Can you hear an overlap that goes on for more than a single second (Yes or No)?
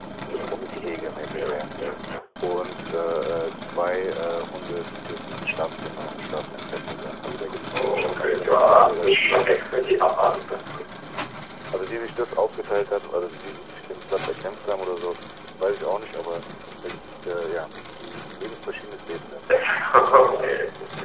Yes